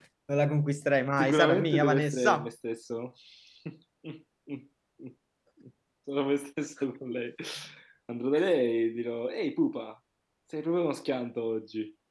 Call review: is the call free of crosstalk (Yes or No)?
No